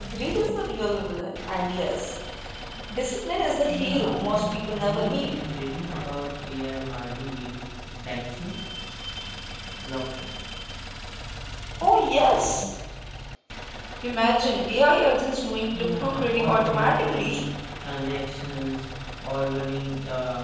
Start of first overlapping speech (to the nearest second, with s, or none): 4 s